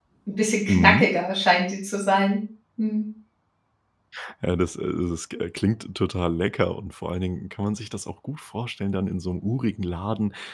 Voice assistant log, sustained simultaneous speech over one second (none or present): none